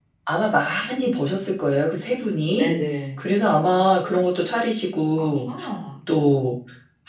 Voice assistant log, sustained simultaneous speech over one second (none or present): none